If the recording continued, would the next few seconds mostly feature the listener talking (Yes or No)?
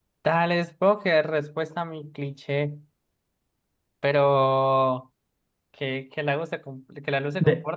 No